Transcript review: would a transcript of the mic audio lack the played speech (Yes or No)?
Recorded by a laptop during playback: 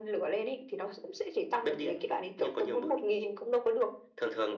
No